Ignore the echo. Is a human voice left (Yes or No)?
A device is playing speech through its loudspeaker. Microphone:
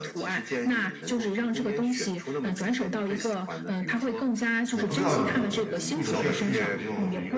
Yes